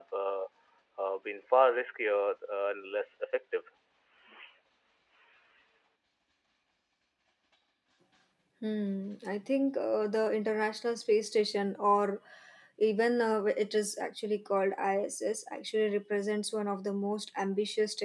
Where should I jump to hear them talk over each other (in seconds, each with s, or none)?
none